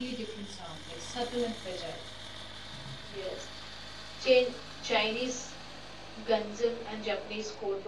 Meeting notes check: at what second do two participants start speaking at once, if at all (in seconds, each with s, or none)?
none